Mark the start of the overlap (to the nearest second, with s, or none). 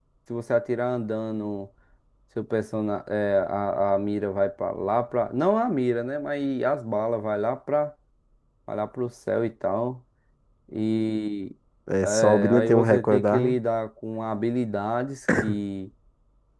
12 s